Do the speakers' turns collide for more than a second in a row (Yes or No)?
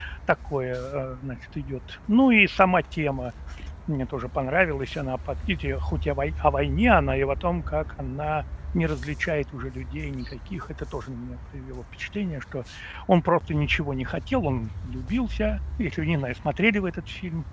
No